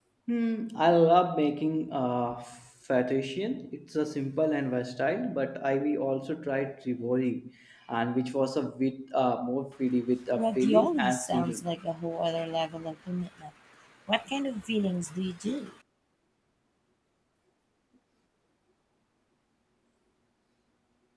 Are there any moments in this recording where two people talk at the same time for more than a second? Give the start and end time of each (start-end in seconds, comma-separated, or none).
10.3-11.6